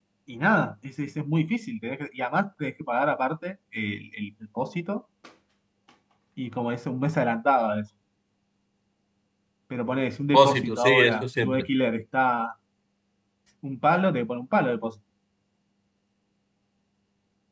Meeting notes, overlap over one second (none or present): present